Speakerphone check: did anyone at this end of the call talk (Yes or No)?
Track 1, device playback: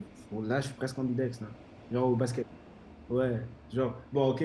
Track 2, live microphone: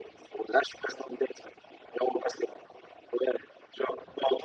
No